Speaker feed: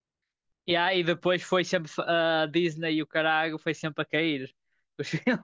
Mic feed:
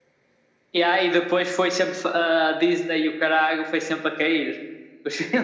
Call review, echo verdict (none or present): present